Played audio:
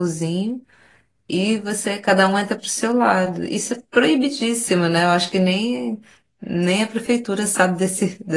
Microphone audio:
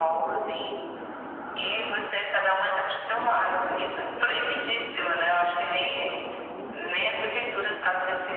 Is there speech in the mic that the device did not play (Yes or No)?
No